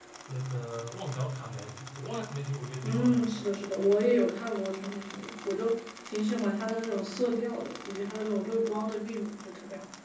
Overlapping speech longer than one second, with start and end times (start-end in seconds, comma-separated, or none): none